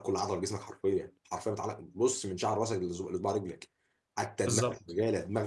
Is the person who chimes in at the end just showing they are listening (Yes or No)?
Yes